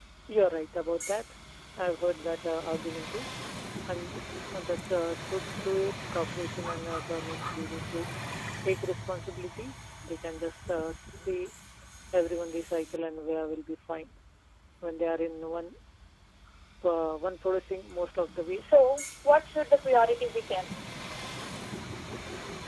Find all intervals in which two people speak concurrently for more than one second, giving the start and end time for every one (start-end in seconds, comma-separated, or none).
none